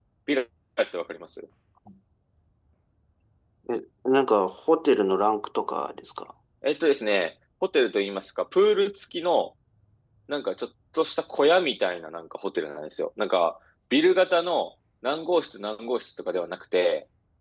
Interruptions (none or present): none